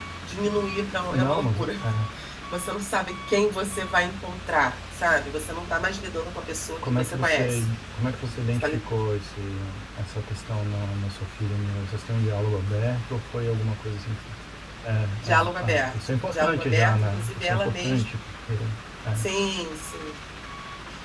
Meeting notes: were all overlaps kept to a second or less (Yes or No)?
No